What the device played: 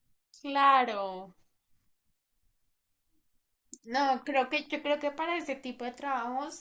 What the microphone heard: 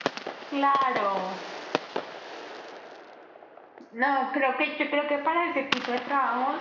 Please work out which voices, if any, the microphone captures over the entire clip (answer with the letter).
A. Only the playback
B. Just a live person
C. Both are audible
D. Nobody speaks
A